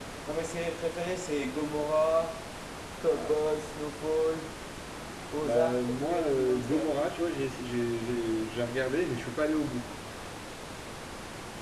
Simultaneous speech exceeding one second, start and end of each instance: 5.4-6.9

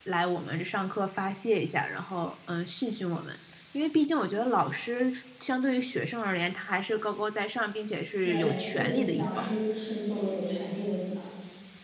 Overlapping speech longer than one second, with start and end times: 8.2-9.5

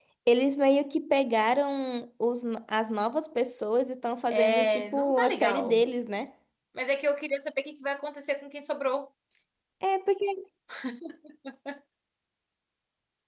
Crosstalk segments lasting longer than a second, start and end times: 4.3-5.8

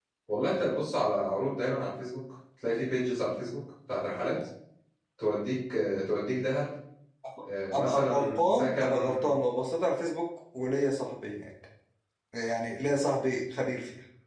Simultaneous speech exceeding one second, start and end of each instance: 7.7-9.3

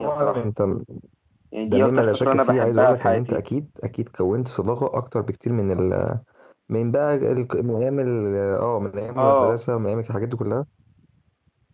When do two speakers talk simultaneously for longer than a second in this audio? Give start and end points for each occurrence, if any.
1.7-3.4

